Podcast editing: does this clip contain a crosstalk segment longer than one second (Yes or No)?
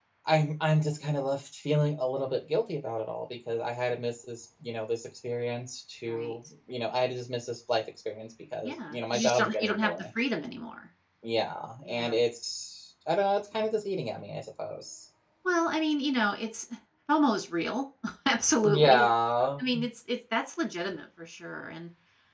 Yes